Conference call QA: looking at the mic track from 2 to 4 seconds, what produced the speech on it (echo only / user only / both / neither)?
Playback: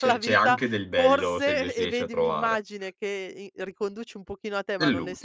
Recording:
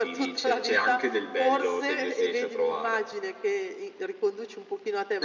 echo only